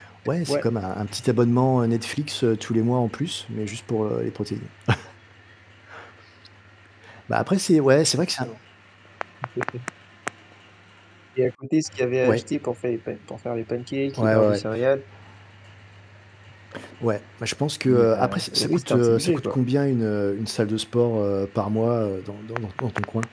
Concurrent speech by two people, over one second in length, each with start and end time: 17.9-19.6

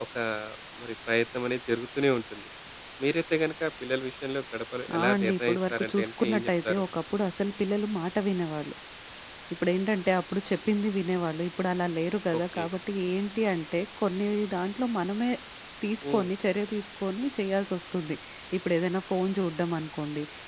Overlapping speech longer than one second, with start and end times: 5.0-6.8

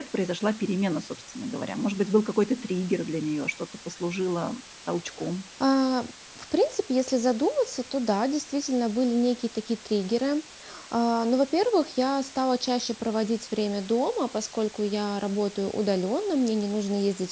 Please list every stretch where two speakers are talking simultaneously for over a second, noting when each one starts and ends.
none

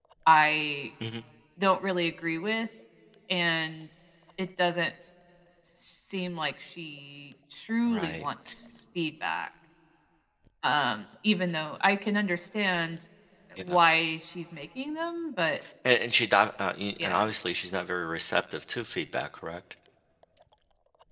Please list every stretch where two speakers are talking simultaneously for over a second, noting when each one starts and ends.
none

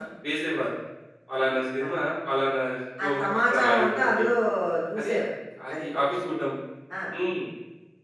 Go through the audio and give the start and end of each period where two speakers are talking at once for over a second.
3.0-4.2

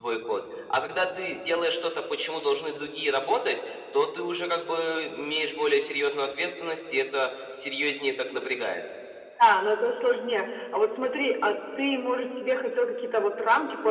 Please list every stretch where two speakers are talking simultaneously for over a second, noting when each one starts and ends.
none

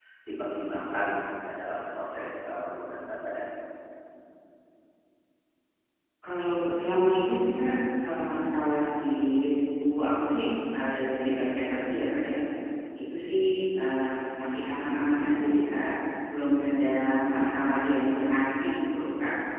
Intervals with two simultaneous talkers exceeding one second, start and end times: none

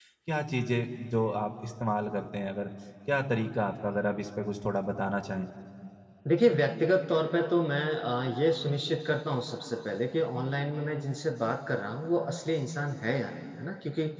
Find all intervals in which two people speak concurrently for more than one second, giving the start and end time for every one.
none

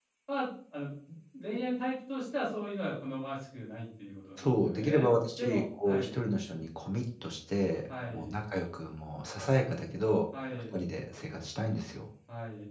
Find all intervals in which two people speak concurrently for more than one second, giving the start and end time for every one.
4.4-6.2

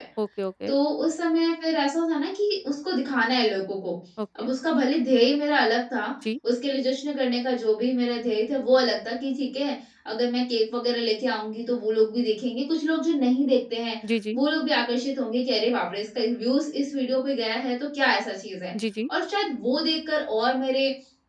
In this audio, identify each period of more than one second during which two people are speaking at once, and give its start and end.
none

